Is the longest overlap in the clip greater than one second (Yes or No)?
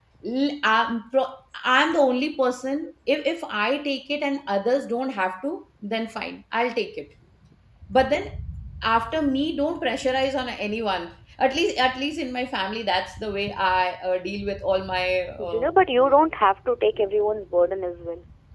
No